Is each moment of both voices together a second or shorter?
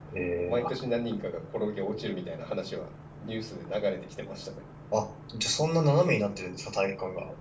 Yes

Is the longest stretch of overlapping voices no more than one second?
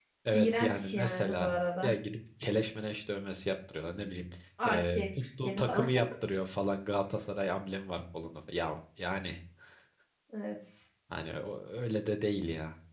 No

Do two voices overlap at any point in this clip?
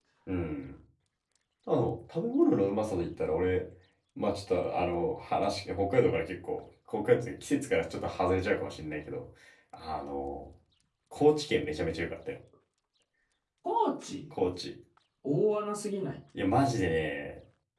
No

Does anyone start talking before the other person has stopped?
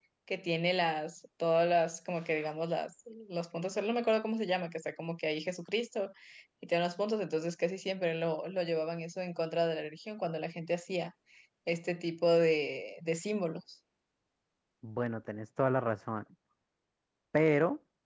No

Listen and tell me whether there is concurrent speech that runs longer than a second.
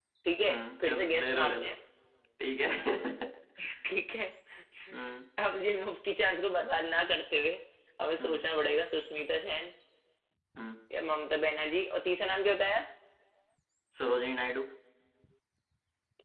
Yes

